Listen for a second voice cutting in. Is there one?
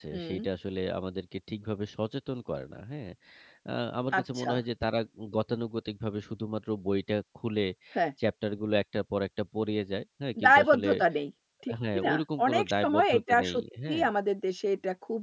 Yes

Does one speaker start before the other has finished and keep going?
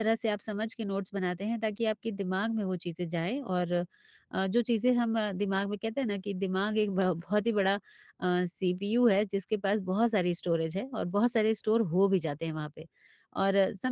No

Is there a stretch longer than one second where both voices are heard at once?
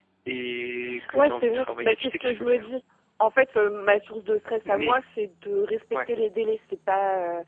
Yes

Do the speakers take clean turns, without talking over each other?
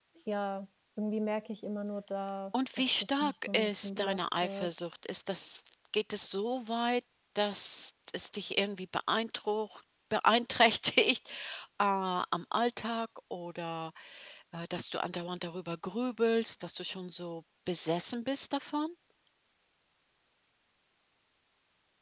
No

